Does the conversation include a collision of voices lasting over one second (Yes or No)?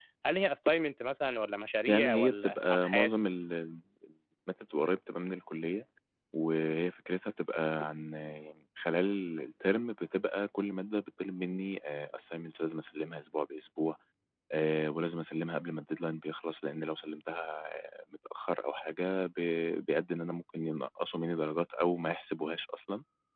Yes